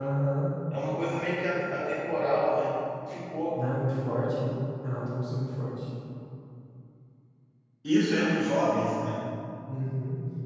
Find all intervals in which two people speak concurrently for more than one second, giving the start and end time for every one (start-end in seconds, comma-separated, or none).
none